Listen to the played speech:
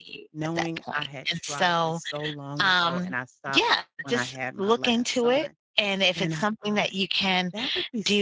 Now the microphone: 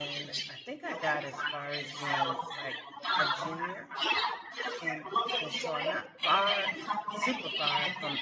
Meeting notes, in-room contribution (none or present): present